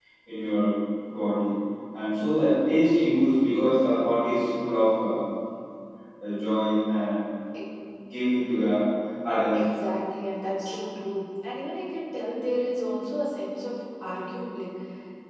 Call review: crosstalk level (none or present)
none